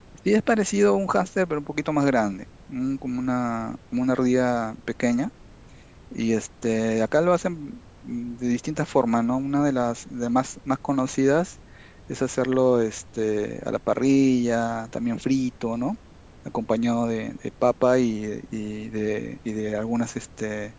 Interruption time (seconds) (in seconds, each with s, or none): none